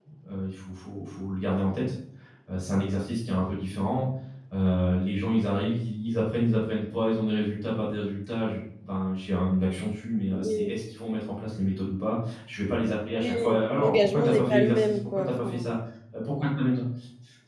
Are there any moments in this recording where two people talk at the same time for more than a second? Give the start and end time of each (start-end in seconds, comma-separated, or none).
13.8-15.7